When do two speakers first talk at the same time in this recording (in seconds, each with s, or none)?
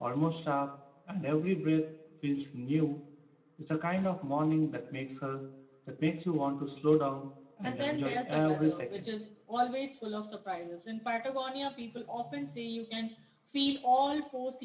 7.6 s